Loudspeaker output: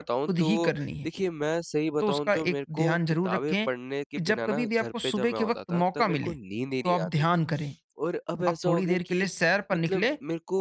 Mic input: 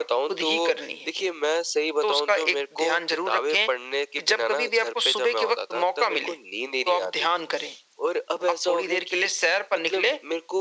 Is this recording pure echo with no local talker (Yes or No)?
Yes